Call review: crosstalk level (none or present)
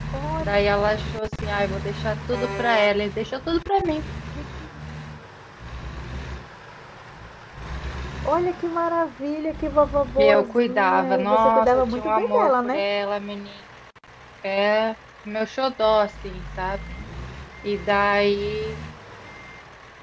present